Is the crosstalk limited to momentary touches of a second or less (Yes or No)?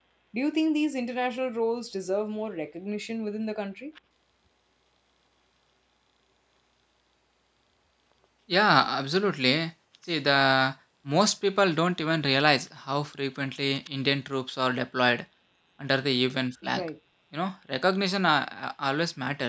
Yes